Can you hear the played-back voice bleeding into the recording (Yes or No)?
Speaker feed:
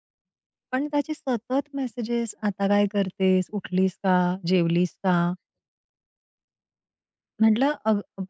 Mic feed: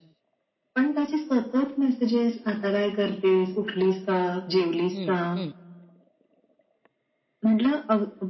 Yes